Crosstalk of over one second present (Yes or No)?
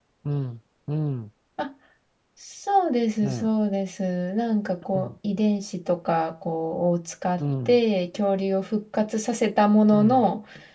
No